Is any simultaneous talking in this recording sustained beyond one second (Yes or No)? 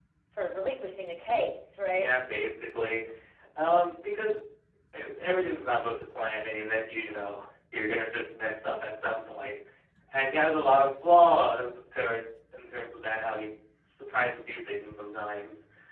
No